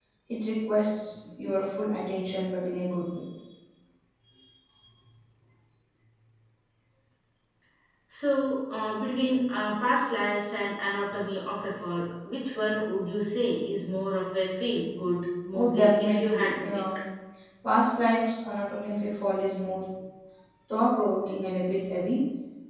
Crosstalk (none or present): present